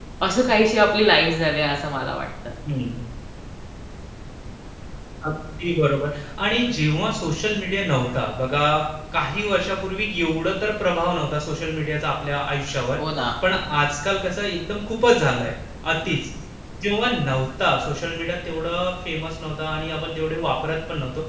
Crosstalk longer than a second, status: none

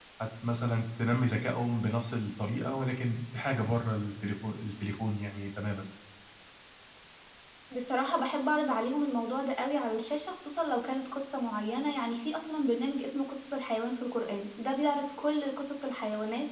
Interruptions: none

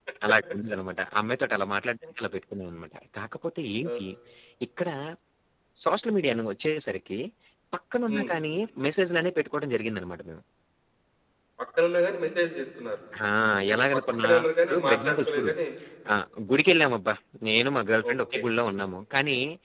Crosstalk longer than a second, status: present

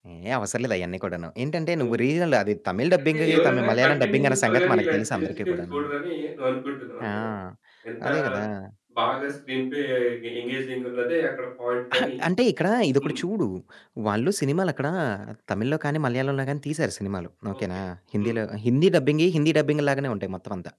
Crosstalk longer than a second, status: present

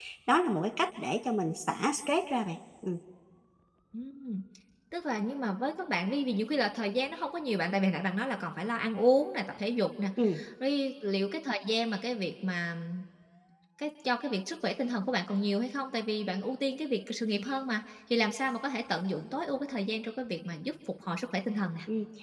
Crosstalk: none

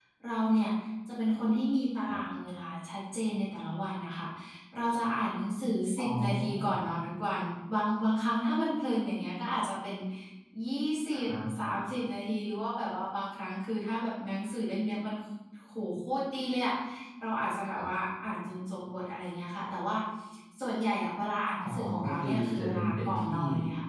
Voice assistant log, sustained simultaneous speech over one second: present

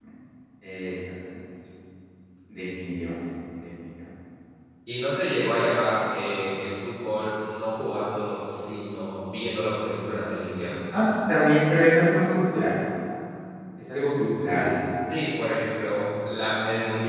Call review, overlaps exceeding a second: none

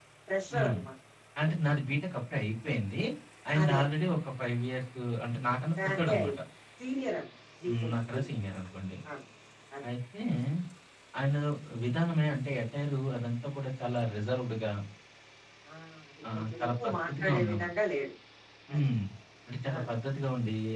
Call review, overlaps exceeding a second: present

